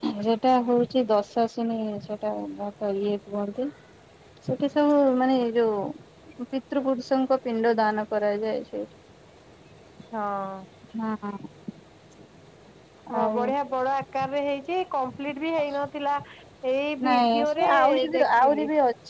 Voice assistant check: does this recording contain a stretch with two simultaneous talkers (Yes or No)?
Yes